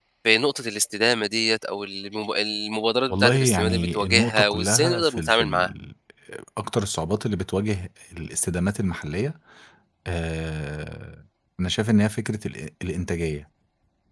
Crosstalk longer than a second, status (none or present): present